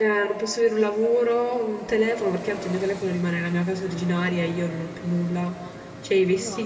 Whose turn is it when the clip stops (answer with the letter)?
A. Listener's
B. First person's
A